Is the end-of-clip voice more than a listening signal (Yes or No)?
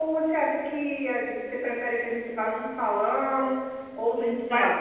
No